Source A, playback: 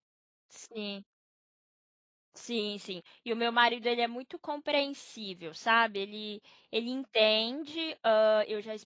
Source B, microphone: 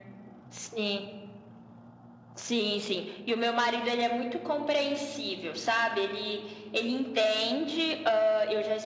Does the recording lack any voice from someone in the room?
Yes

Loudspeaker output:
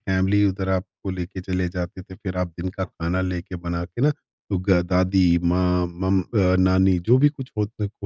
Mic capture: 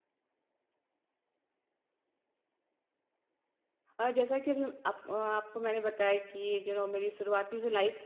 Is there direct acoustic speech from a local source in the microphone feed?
Yes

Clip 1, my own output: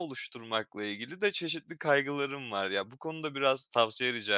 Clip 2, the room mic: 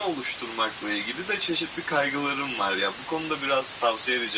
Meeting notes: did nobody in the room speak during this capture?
Yes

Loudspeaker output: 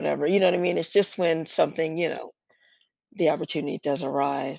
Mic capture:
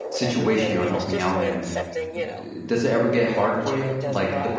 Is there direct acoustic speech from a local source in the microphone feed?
Yes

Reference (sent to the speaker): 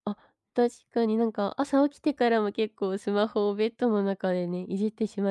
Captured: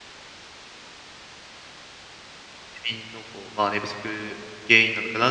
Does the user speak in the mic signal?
Yes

